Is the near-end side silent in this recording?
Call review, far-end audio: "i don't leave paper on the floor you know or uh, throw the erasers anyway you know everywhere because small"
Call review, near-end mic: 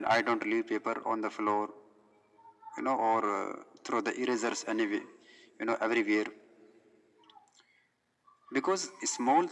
Yes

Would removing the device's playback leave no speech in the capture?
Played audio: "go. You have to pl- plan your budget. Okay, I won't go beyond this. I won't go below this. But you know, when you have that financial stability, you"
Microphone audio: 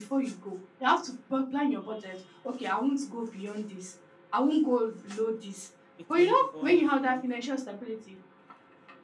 No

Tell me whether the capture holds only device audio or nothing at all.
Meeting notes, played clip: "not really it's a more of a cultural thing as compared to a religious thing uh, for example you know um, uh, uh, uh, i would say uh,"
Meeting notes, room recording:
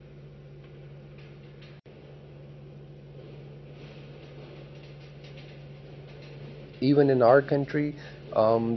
No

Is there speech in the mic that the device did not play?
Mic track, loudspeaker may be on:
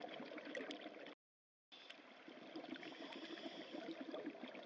No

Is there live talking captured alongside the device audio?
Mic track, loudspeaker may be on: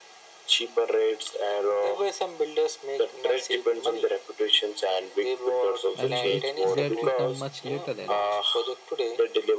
Yes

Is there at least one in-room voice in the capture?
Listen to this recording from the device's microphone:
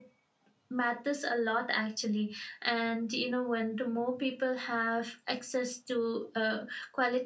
Yes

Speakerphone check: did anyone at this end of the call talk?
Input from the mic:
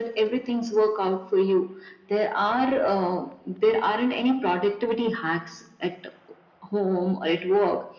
No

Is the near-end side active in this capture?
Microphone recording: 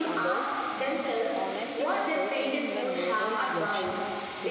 Yes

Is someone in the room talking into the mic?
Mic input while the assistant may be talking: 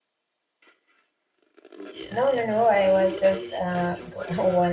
Yes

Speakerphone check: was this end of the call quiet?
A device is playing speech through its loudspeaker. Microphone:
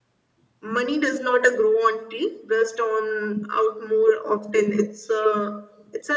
Yes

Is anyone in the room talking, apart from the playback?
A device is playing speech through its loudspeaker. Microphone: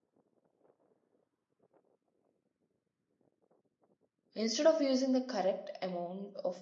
Yes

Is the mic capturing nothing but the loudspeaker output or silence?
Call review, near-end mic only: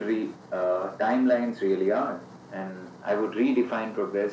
Yes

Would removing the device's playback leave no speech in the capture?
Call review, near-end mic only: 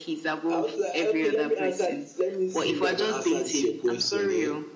No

